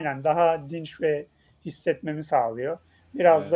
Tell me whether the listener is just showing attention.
Yes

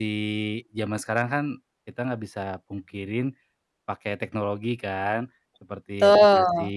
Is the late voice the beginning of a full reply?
No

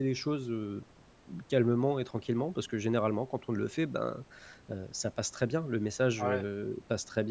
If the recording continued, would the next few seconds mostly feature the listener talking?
No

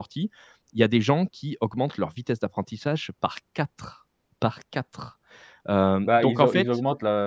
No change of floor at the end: No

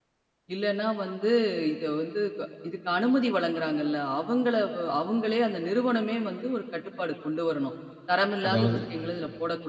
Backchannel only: Yes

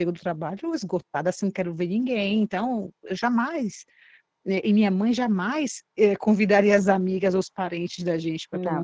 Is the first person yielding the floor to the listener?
No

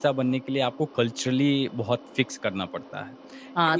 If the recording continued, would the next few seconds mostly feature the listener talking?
Yes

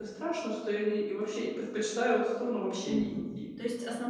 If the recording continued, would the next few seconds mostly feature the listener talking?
Yes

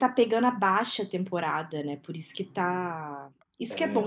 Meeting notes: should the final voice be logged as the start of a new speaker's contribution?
No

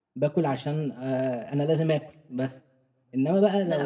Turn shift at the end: No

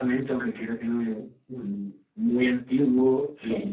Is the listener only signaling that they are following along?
Yes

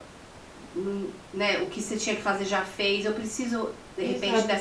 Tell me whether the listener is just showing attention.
No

